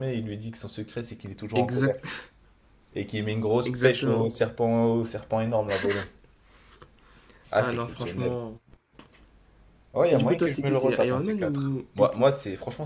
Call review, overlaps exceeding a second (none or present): present